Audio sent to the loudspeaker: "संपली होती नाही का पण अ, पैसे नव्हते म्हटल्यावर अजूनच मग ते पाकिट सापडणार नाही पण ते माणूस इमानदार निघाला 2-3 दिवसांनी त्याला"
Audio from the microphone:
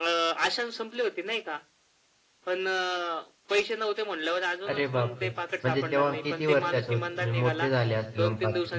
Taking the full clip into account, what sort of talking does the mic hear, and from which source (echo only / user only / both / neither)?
both